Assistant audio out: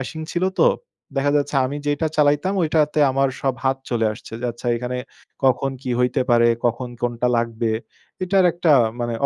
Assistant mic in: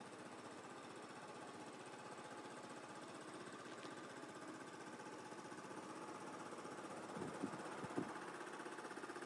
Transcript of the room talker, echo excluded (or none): none